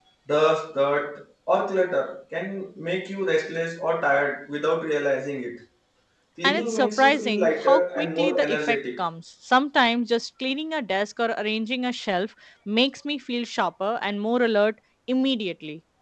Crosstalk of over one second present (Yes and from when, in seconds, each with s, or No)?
Yes, from 6.4 s